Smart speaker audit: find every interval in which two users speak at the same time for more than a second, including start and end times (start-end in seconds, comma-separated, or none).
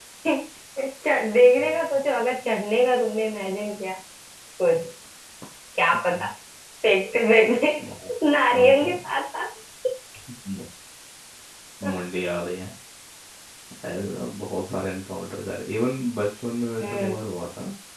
none